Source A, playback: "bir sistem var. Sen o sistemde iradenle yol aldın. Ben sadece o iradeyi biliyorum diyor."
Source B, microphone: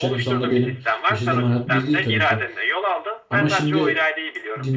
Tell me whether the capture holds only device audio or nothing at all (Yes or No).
No